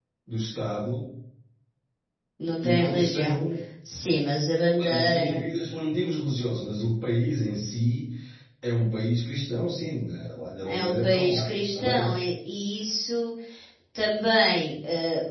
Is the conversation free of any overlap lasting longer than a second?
No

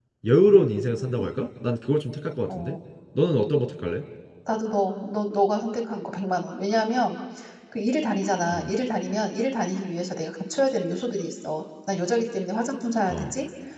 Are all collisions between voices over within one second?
Yes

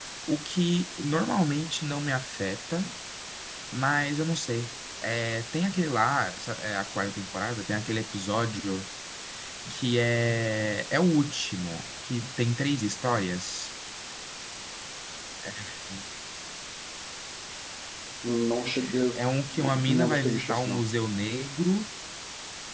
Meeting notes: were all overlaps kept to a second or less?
No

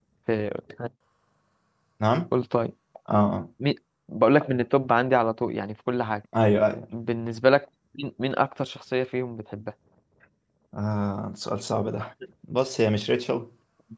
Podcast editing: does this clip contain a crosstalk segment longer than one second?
No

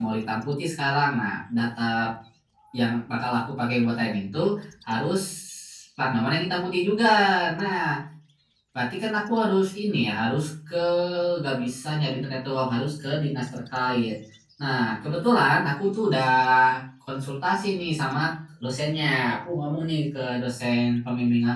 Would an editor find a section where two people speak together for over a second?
No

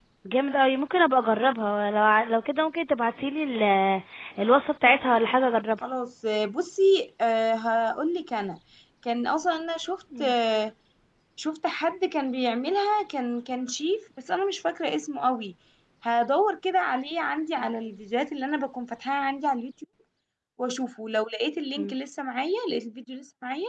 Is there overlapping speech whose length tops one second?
No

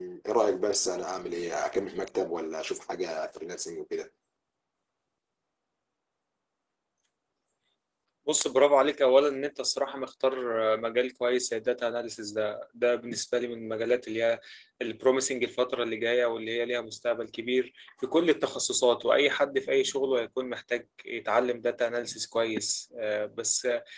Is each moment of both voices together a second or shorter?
Yes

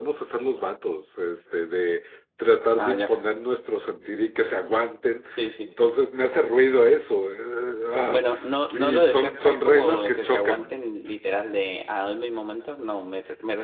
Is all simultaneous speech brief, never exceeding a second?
No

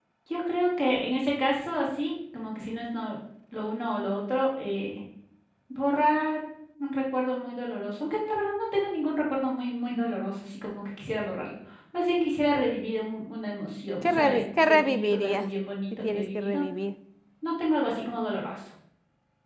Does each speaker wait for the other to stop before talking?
No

